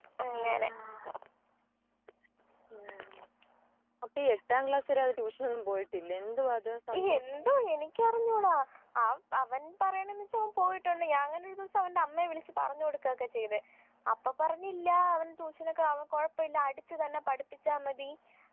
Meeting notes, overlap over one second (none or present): none